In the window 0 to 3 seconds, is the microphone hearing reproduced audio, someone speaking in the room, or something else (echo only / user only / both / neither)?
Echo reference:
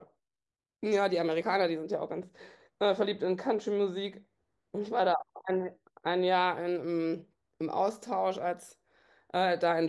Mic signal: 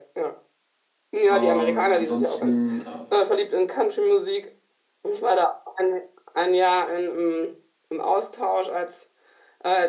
both